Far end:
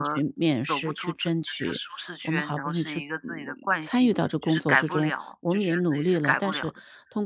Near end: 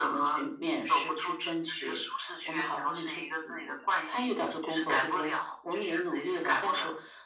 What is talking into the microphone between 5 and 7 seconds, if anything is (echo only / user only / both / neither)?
echo only